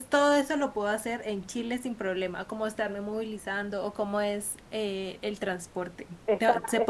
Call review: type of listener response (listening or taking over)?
listening